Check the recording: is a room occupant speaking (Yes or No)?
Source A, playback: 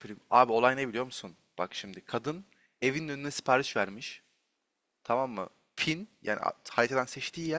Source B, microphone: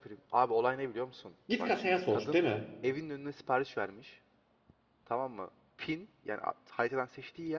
Yes